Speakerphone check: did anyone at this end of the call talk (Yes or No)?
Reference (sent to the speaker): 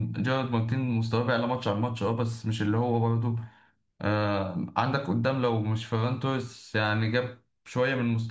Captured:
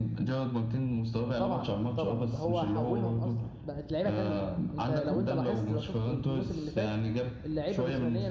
Yes